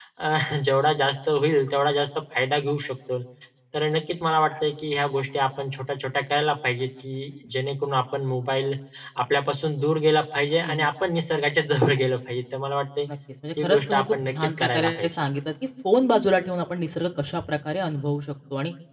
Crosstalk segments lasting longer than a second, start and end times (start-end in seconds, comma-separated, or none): 13.6-15.2